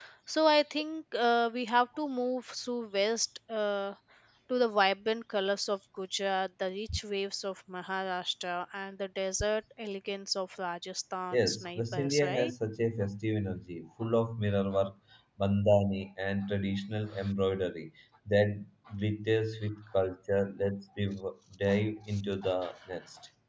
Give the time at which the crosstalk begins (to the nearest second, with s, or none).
11 s